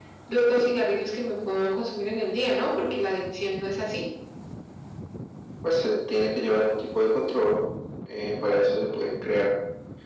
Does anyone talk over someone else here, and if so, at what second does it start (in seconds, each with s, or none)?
none